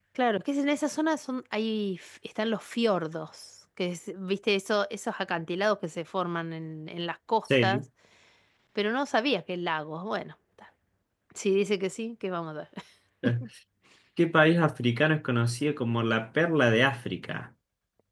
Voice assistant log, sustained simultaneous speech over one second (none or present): none